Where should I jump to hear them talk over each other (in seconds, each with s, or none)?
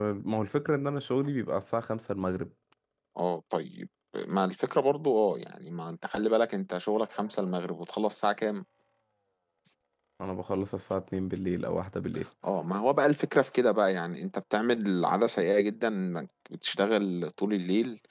none